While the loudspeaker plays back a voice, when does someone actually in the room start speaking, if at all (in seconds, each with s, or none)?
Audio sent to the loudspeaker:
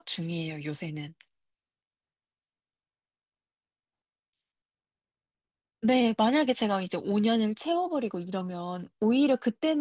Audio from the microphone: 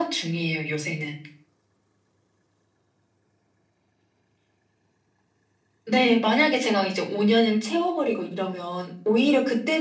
none